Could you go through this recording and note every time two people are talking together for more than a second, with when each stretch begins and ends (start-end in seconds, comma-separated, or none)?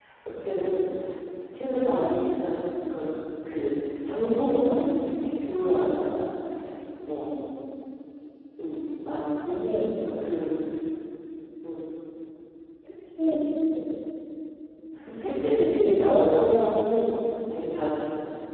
15.2-16.5